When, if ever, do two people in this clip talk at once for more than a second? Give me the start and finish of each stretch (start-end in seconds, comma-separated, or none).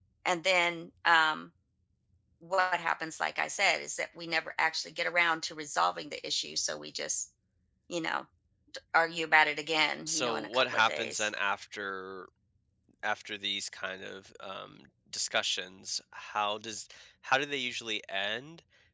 10.1-11.3